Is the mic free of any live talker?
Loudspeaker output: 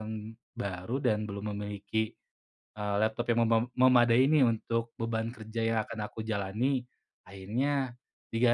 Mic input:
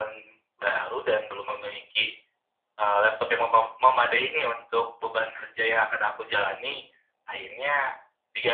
Yes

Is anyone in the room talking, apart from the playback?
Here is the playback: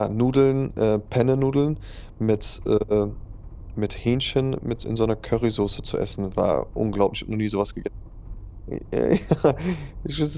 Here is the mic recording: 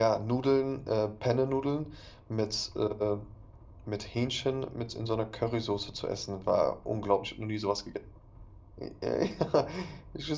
No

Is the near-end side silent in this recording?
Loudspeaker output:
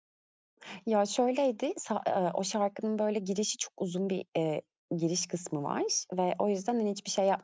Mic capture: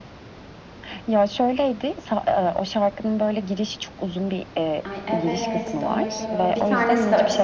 No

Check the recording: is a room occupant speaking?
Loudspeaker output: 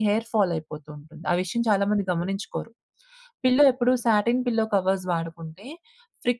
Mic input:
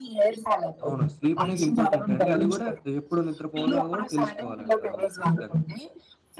Yes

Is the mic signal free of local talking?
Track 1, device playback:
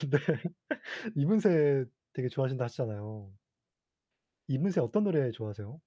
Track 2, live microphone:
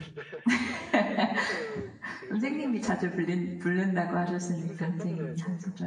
No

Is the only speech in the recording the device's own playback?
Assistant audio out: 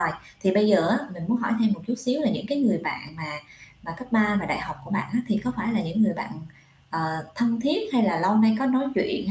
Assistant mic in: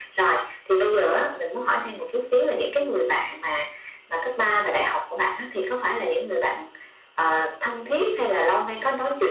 Yes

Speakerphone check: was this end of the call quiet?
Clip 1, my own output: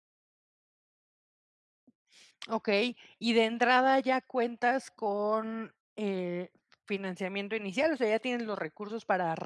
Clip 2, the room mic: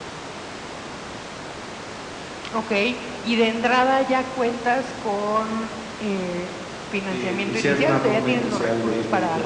No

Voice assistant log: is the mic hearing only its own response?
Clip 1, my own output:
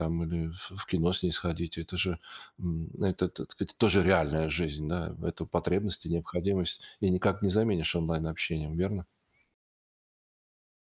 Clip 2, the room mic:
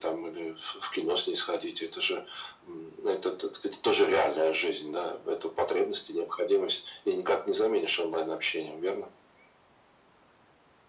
Yes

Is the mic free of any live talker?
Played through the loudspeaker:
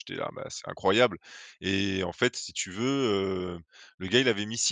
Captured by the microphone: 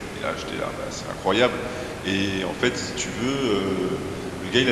Yes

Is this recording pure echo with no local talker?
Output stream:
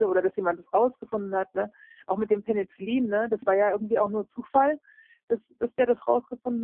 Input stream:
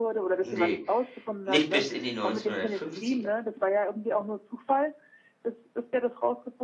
No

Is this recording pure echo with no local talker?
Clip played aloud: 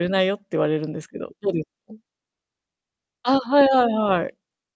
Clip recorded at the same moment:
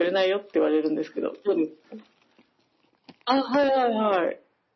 Yes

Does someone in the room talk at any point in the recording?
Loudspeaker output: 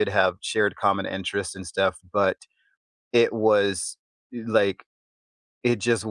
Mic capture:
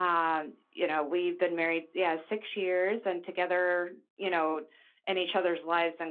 Yes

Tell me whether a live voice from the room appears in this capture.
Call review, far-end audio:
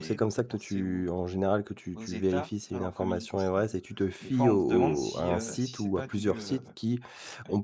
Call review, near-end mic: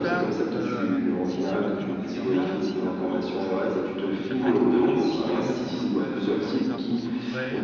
Yes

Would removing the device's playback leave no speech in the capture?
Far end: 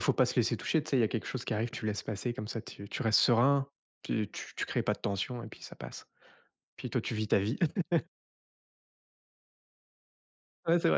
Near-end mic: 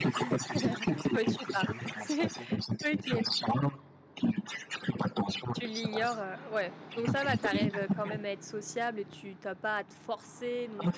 No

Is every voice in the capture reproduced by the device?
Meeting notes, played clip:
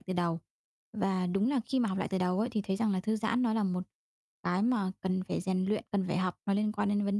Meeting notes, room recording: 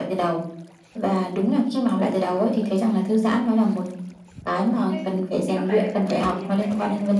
No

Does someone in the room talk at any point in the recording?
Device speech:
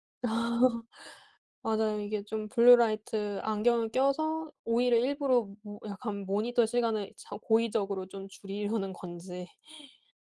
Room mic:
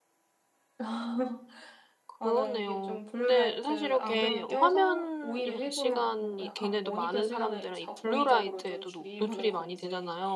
Yes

